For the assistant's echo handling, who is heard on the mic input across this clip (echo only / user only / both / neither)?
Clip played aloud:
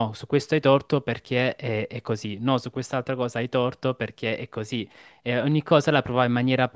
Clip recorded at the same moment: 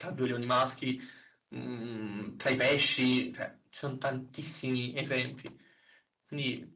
user only